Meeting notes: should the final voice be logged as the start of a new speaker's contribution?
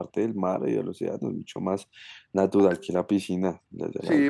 Yes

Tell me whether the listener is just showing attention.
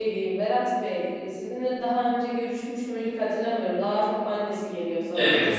No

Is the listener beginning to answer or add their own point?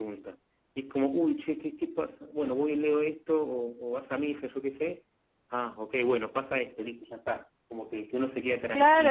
Yes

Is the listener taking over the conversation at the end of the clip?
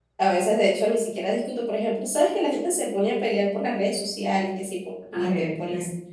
No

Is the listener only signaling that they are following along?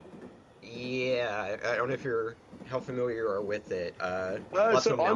No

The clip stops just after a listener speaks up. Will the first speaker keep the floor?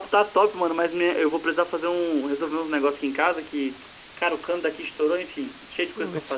No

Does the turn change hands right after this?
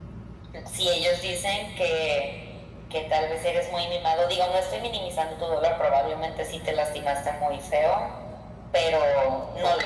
Yes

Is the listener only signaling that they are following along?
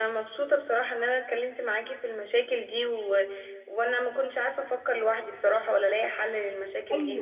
No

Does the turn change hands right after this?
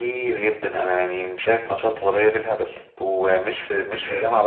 No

